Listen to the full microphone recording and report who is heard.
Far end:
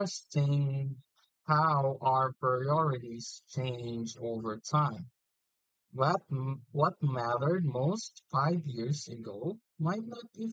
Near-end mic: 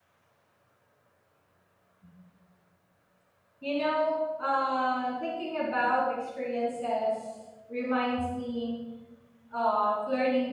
user only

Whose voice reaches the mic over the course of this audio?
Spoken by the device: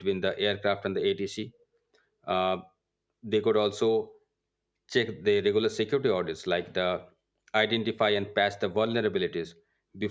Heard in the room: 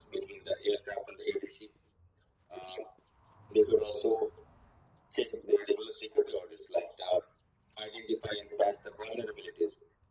echo only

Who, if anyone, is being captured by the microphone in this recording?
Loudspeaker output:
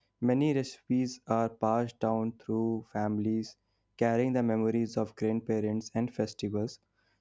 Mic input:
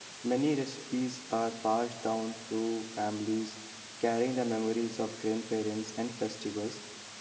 echo only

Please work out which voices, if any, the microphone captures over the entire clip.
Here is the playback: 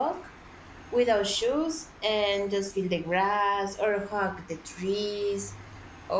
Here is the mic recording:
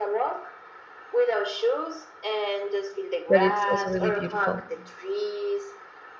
both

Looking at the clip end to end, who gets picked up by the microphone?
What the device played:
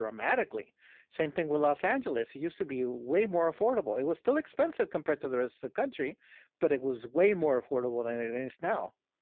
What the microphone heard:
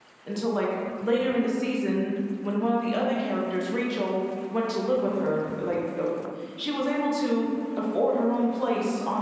user only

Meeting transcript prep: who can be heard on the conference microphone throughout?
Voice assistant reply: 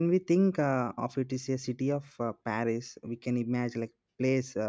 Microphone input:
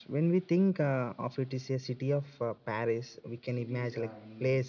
both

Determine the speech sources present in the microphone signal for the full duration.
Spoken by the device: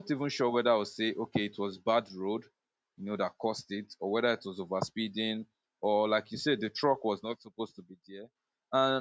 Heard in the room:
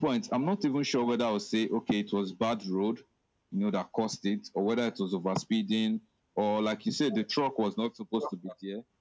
both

